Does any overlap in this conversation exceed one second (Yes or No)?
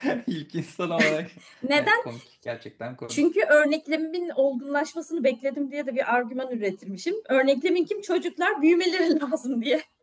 No